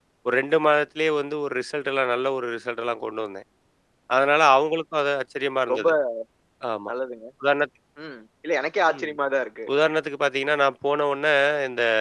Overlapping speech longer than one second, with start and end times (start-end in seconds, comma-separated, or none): none